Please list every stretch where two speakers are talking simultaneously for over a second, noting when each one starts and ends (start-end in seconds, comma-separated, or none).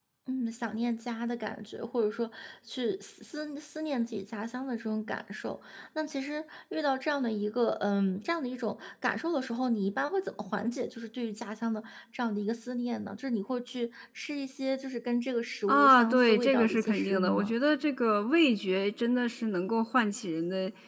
15.7-17.5